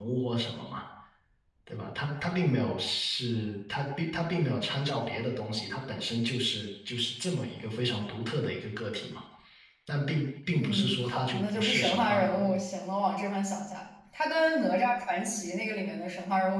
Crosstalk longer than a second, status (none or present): present